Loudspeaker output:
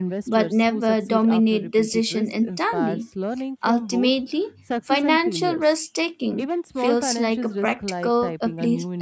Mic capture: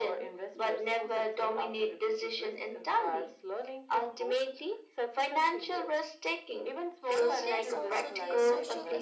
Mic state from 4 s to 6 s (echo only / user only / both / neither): echo only